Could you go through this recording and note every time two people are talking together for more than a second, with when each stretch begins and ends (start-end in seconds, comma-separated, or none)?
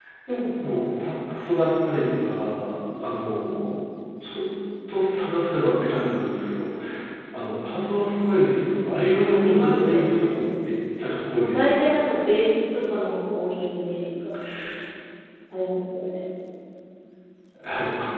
9.2-10.4